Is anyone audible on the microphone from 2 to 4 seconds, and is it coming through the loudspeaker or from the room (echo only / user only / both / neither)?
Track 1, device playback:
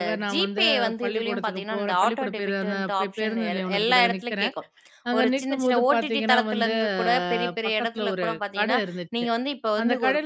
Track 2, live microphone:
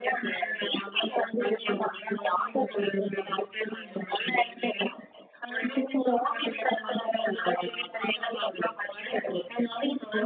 echo only